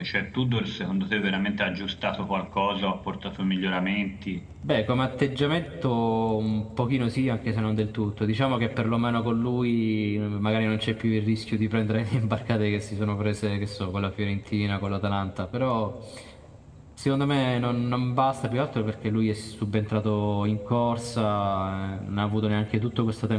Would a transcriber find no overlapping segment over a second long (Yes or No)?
Yes